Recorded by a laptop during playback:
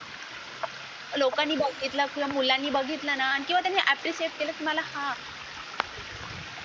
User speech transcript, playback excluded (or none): लोकांनी बघितलं किंवा मुलांनी बघितलं ना आणि किंवा त्यांनी ॲप्रिशिएट केलं, की मला "हां,